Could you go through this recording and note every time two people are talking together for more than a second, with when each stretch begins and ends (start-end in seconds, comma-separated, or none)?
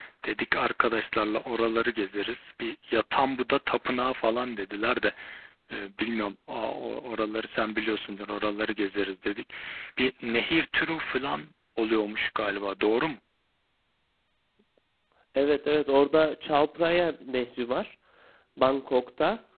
none